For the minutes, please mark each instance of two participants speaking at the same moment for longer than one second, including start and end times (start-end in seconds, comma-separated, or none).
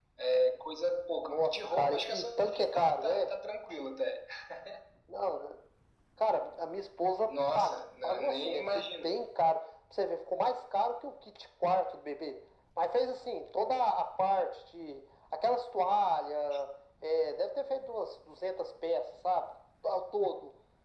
1.2-3.3, 7.3-9.1